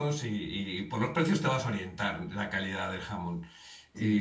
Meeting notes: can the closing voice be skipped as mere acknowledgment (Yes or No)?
No